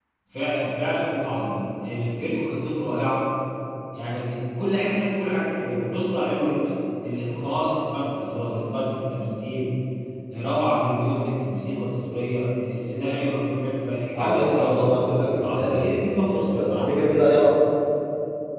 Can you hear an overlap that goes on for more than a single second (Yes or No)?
Yes